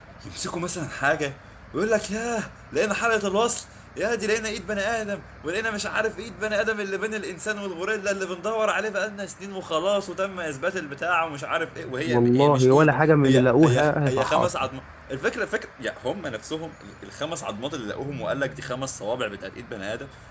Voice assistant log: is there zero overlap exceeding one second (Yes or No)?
No